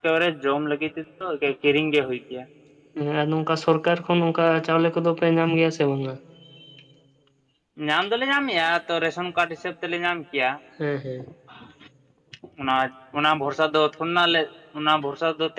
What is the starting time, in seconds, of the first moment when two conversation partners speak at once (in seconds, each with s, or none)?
none